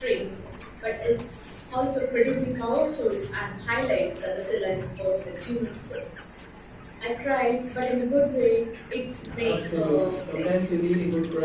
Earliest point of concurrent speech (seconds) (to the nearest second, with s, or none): 9 s